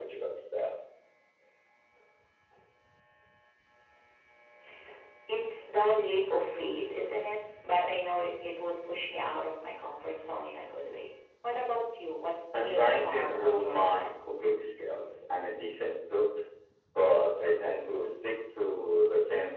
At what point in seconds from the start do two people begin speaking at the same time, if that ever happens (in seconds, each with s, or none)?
12.5 s